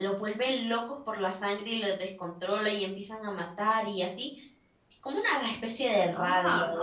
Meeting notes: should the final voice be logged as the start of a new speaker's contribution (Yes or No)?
Yes